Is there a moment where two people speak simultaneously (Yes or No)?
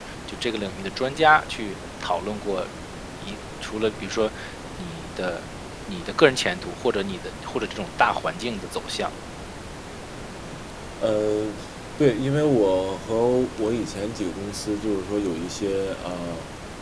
No